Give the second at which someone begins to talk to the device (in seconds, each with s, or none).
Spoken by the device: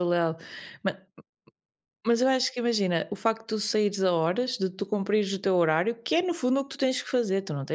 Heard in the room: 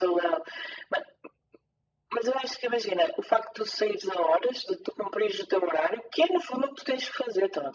none